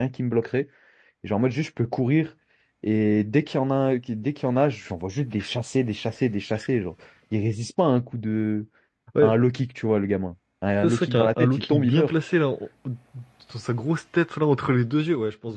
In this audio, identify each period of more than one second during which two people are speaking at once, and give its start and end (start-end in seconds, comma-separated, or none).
10.8-12.1